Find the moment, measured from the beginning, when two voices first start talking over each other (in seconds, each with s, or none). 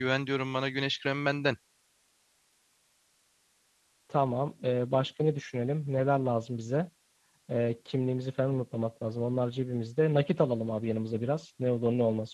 none